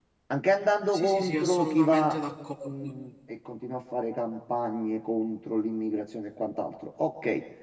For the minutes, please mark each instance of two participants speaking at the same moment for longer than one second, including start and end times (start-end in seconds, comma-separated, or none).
0.9-2.2